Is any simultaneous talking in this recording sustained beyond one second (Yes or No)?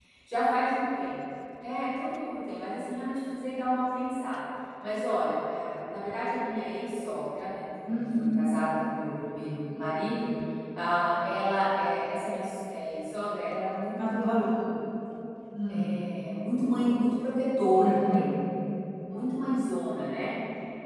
No